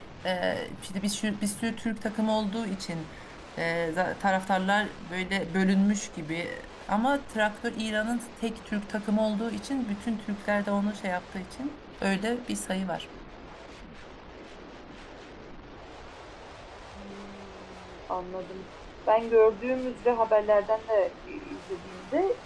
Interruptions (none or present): none